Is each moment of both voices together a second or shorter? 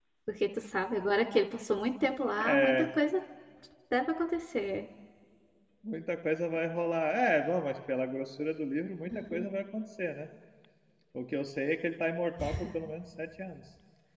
Yes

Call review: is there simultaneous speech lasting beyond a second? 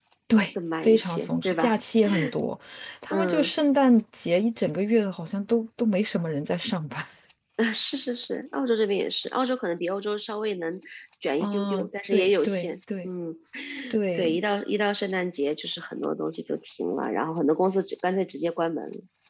Yes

